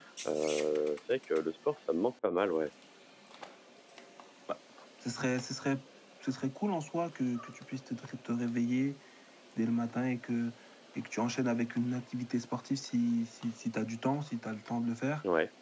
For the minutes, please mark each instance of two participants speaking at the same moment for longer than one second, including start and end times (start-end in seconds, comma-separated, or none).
none